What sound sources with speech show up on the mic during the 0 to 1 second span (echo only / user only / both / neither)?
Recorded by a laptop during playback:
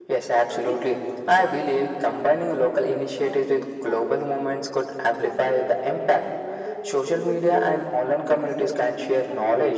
both